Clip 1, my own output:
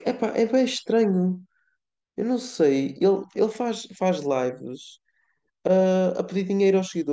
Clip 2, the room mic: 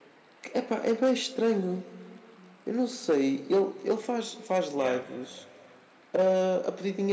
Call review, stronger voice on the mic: echo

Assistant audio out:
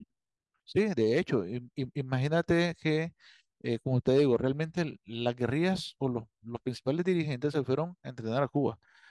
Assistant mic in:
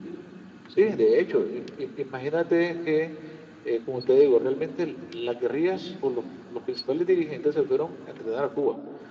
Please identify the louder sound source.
echo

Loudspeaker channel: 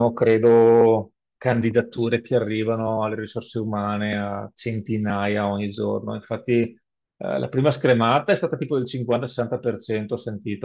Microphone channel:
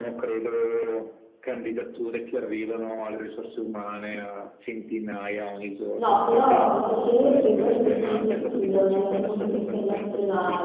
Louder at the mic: user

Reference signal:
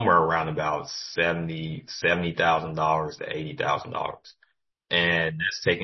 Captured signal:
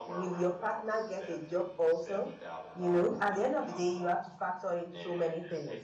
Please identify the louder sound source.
user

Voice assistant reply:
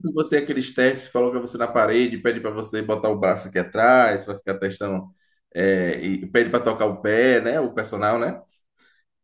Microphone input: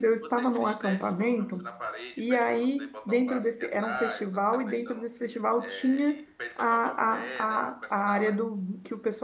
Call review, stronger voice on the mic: user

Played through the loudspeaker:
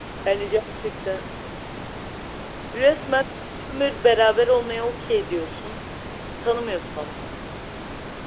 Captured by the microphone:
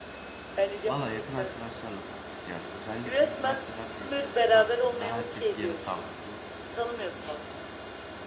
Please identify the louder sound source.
echo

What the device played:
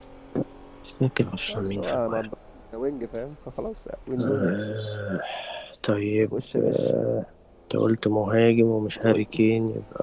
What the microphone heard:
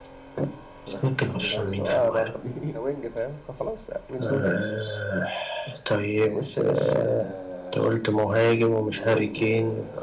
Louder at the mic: echo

